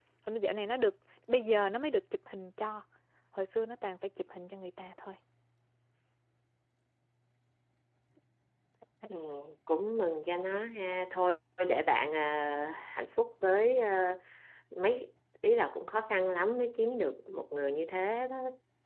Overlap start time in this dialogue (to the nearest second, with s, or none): none